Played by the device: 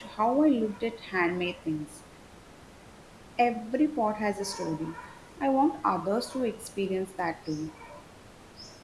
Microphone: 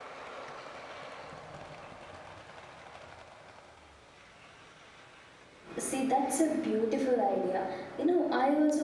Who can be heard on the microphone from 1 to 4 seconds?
neither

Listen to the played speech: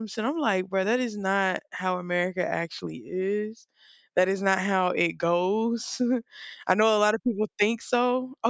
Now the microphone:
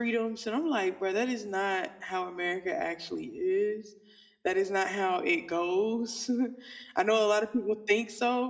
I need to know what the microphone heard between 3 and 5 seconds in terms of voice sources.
echo only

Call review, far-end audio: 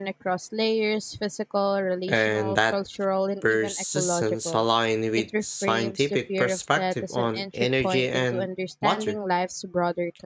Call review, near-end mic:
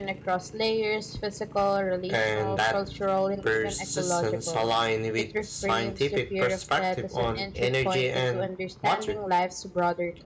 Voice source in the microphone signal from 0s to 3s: echo only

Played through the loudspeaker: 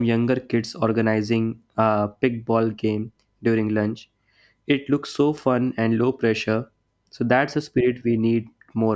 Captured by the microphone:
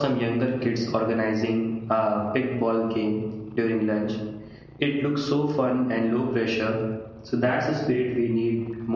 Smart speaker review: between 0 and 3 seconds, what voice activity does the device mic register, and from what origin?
echo only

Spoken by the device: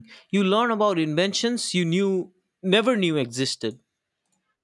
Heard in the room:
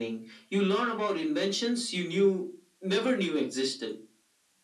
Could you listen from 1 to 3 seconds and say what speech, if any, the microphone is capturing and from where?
echo only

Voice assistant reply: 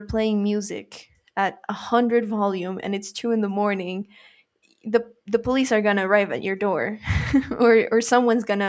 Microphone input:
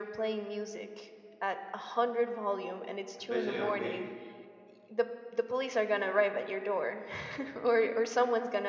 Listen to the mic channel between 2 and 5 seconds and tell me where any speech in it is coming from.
both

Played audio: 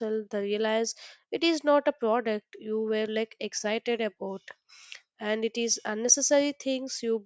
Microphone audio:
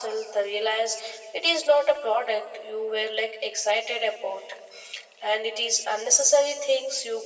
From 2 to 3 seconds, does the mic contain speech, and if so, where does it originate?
echo only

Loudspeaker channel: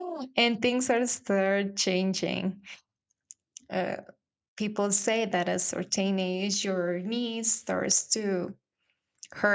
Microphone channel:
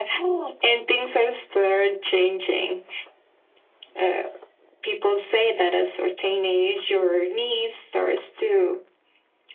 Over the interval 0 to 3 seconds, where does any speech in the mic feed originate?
echo only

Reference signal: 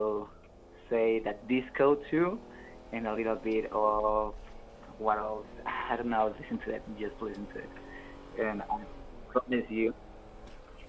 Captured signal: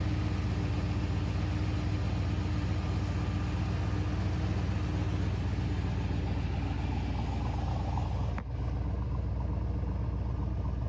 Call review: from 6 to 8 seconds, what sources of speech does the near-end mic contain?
neither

